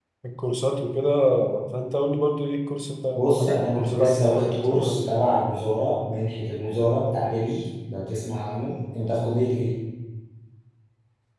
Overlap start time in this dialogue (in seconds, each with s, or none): 3.1 s